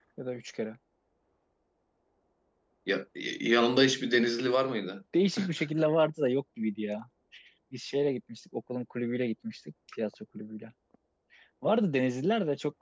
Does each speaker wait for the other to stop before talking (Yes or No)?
Yes